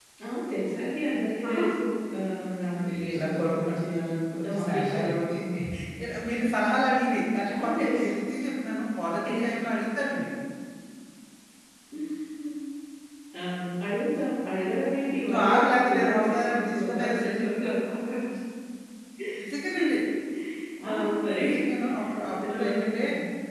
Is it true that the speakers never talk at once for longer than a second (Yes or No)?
No